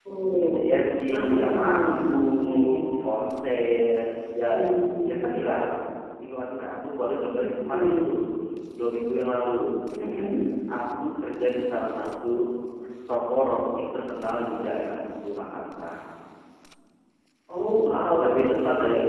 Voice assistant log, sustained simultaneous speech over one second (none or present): present